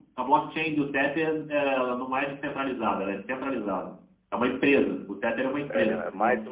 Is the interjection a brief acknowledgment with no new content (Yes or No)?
No